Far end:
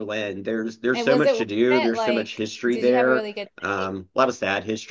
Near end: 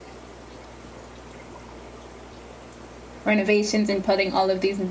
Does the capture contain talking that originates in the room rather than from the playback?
Yes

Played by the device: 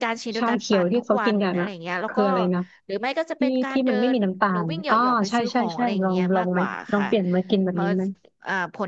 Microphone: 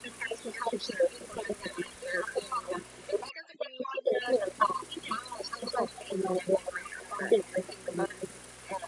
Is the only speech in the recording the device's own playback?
Yes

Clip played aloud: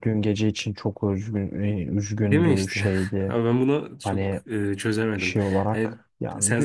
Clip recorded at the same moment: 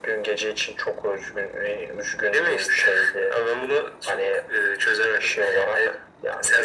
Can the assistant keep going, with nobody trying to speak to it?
Yes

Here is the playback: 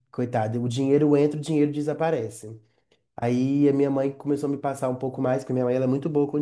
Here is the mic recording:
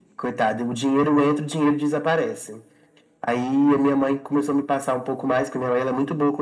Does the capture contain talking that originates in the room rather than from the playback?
No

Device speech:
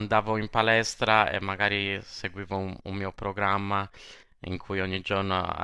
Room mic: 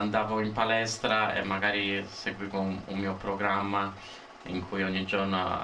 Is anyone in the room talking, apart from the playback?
No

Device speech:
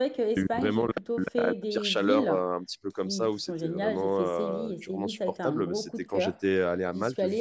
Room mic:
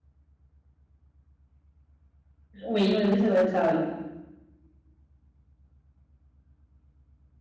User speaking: Yes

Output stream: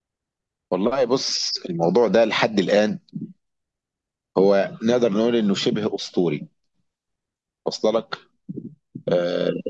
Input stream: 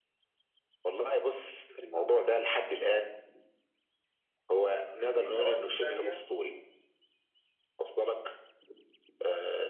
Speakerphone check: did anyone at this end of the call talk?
Yes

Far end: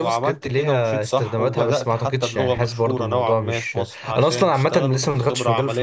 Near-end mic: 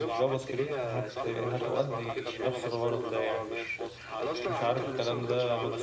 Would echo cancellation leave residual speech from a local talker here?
Yes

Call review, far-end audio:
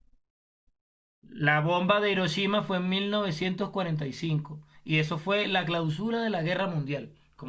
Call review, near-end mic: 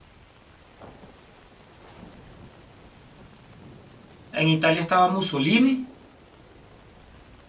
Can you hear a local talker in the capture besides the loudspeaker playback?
Yes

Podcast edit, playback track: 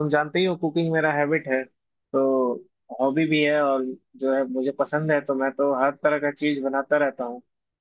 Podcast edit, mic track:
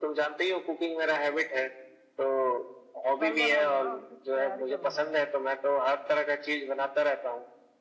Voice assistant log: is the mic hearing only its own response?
No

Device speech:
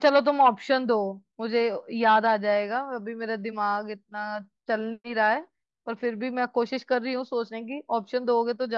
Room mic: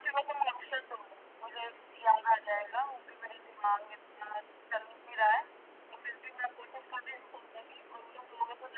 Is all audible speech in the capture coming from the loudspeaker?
Yes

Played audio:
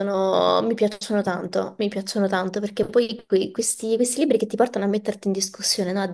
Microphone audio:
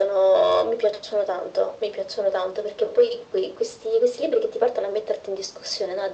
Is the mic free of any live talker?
Yes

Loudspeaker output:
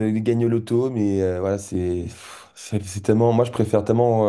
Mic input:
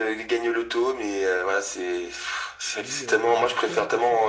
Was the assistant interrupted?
Yes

